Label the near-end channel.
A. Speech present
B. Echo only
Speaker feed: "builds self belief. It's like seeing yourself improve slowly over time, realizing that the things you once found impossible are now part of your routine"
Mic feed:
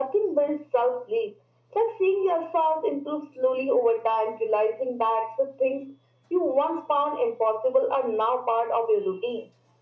B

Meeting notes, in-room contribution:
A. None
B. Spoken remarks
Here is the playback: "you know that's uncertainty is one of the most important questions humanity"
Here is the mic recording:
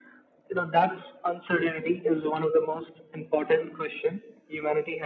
A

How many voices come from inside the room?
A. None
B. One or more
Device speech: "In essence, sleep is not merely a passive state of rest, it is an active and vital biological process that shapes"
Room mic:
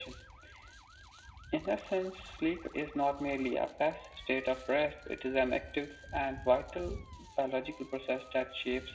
A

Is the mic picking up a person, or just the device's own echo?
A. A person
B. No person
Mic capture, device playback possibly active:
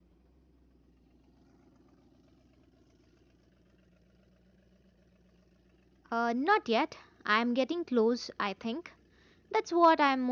A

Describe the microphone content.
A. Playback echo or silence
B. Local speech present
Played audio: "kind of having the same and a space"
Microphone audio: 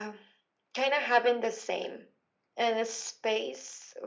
A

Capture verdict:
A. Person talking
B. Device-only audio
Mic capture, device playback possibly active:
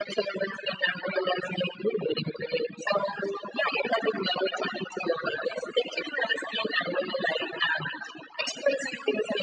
B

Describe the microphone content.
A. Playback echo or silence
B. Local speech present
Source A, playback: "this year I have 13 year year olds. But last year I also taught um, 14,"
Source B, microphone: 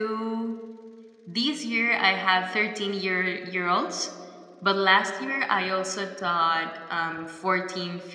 A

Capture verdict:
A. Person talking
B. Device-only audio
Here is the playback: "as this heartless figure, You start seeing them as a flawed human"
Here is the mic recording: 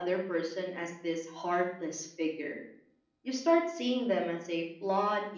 B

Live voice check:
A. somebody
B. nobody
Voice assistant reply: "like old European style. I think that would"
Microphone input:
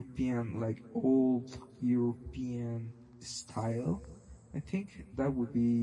B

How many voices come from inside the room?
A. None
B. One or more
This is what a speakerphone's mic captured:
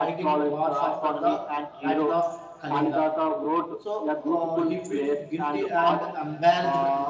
B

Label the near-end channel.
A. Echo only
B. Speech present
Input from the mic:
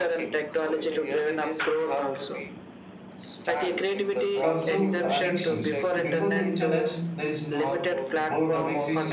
B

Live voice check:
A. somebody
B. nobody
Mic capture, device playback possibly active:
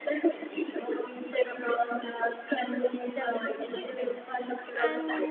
A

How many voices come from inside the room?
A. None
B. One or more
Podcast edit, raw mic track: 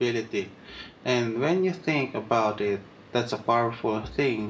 B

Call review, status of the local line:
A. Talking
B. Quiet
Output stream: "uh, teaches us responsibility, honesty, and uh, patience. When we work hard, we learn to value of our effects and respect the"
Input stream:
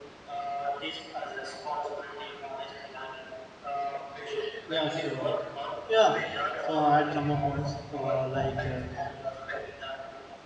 A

